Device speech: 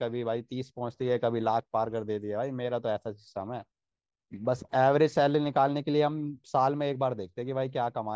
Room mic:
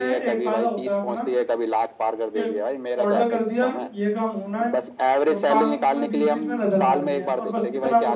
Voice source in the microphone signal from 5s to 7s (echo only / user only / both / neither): both